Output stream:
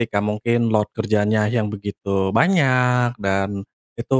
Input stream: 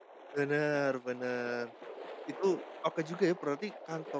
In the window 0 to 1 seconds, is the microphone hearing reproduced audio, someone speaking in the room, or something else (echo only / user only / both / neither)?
user only